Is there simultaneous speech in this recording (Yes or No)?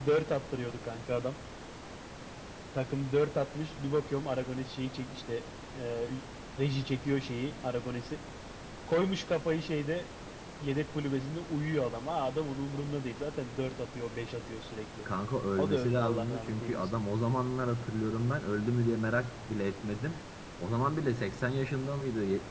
Yes